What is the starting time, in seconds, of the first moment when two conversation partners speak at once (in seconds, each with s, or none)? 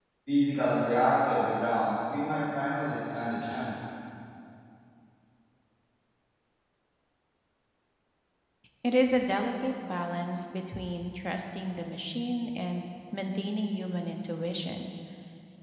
none